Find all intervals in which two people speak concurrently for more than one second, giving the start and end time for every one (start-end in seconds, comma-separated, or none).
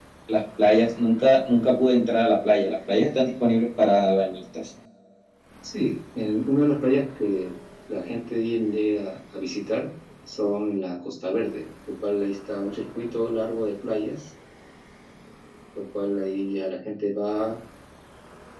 none